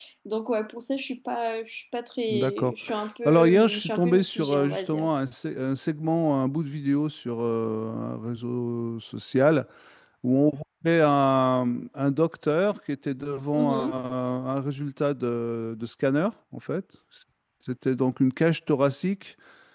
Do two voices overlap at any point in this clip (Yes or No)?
Yes